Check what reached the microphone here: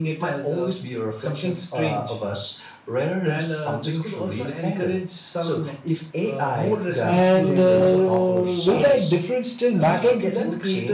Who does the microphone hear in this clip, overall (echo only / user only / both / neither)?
both